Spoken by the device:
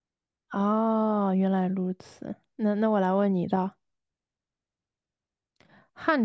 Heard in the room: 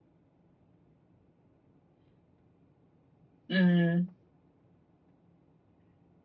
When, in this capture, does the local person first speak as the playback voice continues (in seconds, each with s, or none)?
3.5 s